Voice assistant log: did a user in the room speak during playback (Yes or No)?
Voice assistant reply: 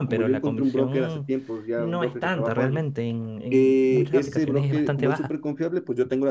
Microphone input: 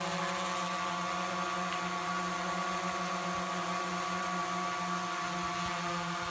No